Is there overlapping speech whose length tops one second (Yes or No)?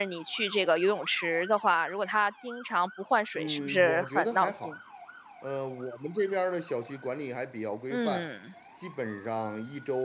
Yes